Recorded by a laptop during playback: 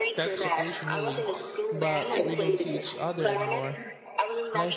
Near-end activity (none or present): present